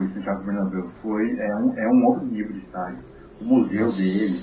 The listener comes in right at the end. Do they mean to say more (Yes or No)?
No